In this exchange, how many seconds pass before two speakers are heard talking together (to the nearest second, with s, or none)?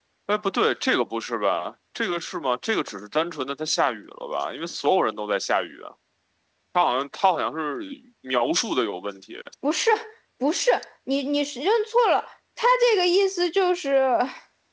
none